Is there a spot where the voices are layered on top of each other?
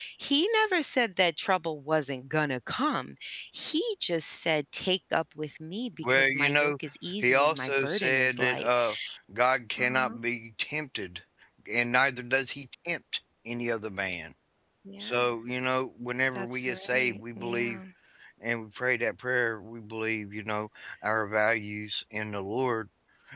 Yes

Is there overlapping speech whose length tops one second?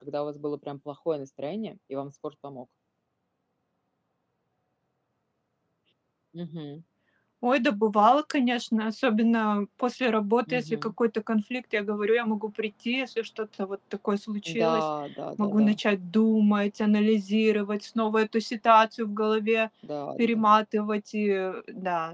No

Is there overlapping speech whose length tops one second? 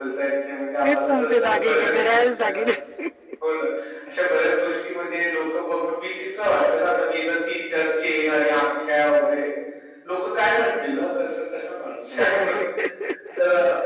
Yes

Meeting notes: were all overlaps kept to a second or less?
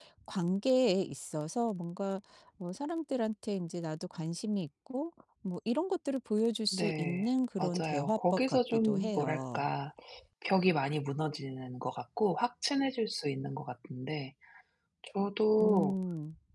No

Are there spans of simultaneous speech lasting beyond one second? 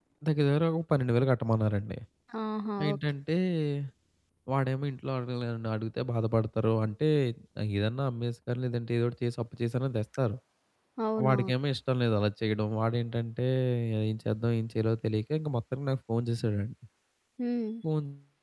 No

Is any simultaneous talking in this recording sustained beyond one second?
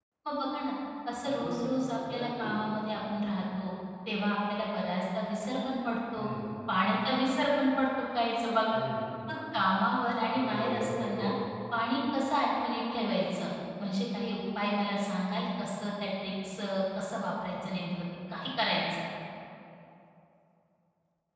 Yes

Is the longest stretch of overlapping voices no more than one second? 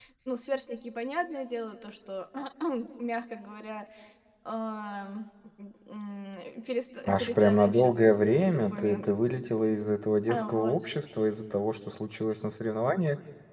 No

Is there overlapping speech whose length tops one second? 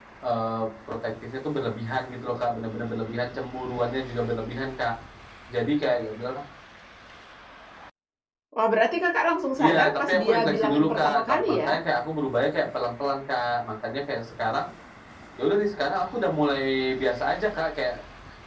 Yes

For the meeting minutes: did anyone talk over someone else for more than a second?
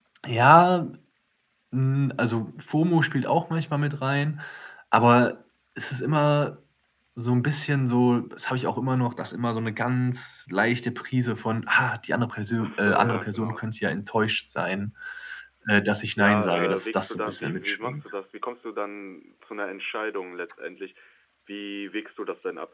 Yes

